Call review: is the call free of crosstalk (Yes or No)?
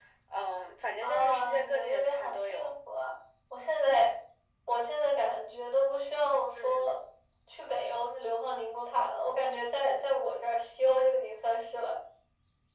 No